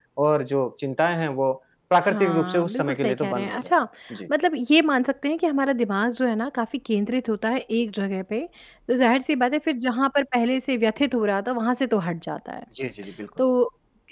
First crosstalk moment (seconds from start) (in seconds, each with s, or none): 2.1 s